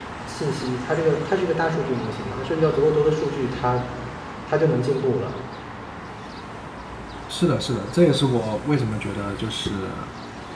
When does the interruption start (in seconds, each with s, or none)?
none